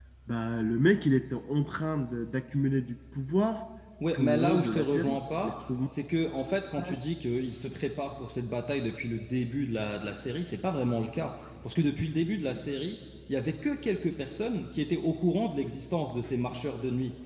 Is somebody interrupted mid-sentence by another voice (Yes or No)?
Yes